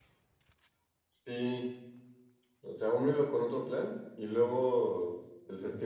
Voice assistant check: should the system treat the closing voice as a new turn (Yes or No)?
No